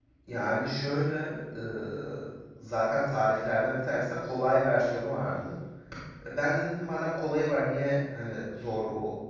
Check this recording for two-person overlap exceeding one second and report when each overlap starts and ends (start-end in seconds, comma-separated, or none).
none